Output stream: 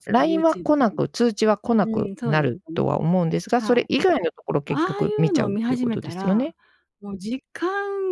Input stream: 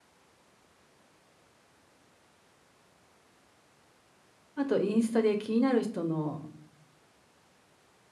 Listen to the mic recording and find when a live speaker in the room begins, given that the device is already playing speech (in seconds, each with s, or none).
4.6 s